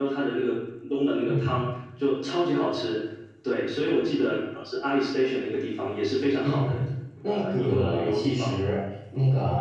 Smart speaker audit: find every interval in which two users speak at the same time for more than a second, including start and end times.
7.2-8.6

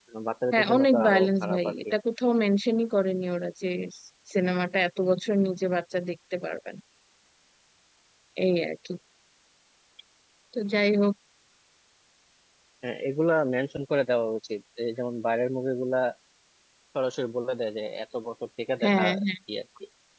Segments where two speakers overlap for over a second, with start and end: 0.5-1.7

